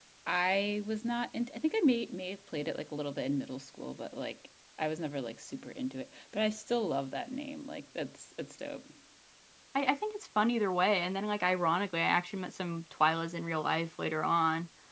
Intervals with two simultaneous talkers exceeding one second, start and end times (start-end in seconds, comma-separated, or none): none